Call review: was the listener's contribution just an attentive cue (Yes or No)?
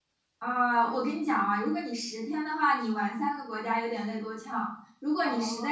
Yes